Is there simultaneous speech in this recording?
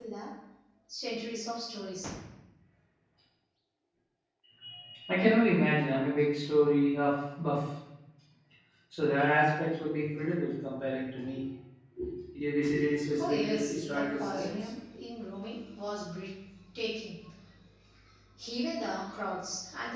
Yes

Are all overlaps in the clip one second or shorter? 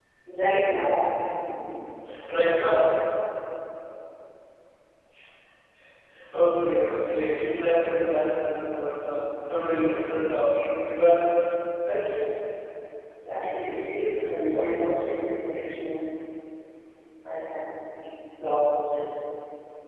No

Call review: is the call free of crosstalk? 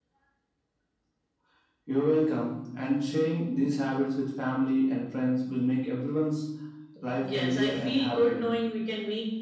No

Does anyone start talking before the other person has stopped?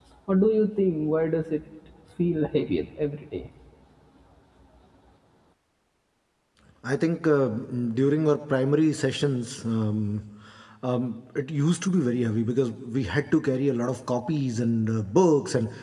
No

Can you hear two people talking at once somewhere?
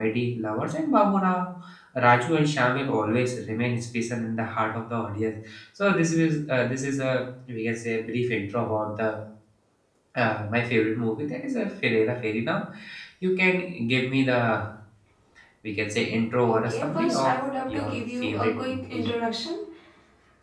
Yes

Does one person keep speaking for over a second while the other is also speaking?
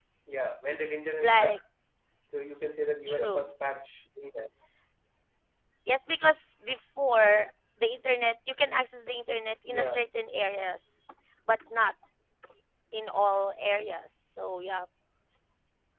No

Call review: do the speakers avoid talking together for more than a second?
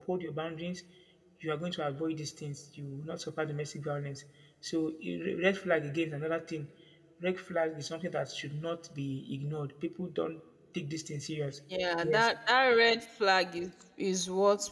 Yes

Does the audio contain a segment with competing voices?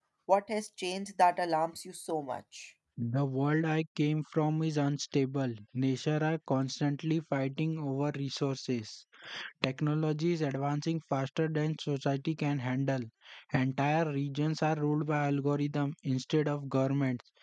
No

